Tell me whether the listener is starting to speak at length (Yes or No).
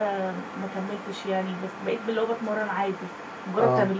No